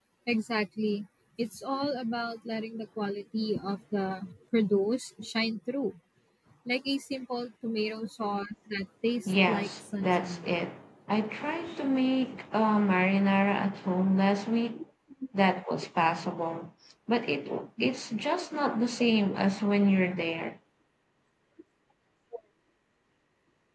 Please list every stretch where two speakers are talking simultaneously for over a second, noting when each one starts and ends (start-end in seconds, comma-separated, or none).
9.3-10.6